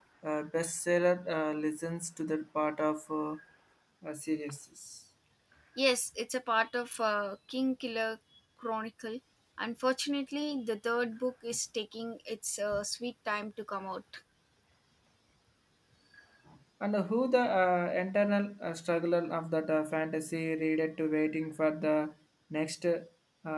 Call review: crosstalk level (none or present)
none